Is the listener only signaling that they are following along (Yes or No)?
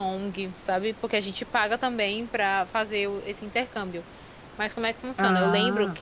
Yes